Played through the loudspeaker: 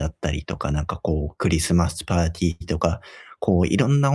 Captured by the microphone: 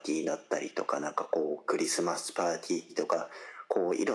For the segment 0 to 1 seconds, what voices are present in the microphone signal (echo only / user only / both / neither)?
echo only